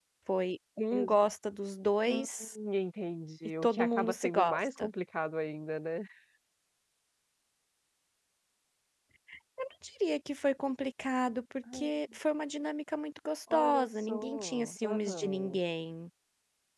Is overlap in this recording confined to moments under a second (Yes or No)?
No